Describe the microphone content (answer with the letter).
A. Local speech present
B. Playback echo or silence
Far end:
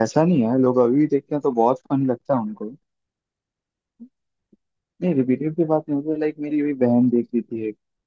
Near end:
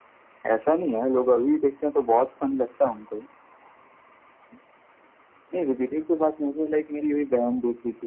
B